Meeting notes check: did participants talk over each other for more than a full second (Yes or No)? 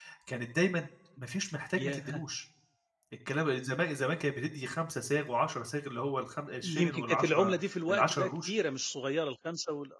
Yes